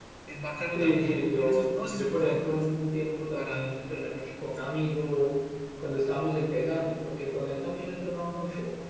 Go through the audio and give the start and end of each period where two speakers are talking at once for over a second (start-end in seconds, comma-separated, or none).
0.8-2.6